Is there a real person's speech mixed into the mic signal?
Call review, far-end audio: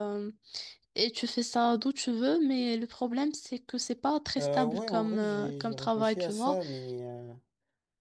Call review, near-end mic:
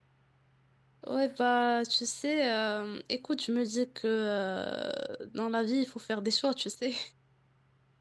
Yes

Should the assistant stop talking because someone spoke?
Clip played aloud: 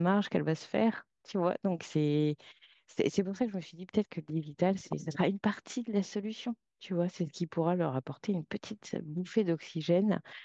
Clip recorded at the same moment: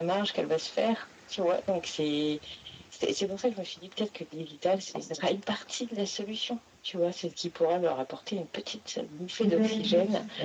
Yes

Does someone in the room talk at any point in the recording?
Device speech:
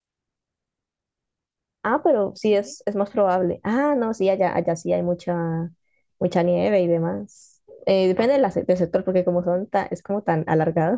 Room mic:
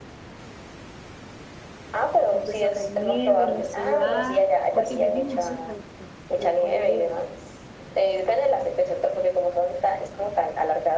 Yes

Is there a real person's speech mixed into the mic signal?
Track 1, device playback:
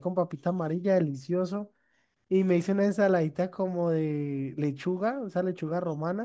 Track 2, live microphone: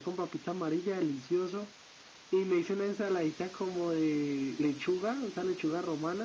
No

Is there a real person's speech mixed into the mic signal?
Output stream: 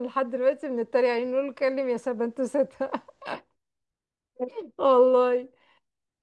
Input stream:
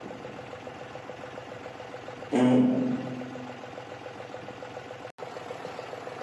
Yes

